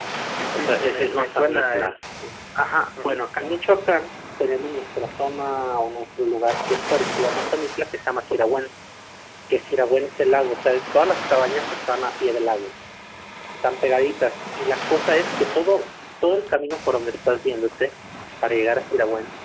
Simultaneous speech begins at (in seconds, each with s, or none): 0.5 s